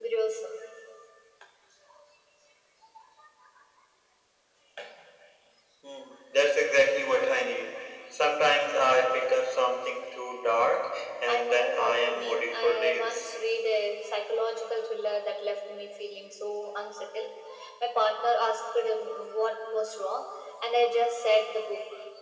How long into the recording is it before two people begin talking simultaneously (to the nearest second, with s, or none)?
11 s